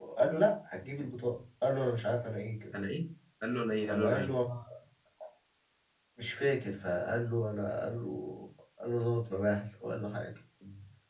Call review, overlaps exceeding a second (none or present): none